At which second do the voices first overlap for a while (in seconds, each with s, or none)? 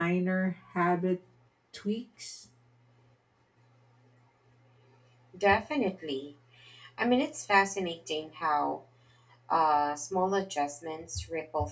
none